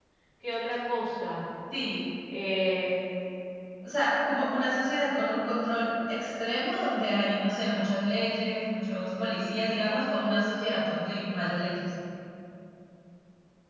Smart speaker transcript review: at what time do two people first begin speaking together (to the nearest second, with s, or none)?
none